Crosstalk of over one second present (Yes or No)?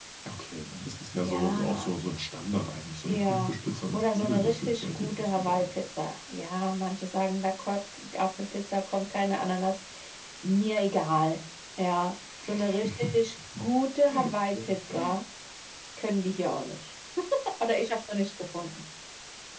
Yes